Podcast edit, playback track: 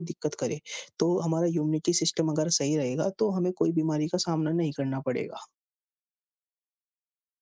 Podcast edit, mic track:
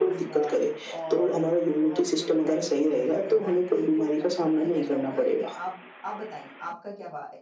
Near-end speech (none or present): present